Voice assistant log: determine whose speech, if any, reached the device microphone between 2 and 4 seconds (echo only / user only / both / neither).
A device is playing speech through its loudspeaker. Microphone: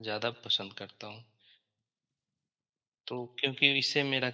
user only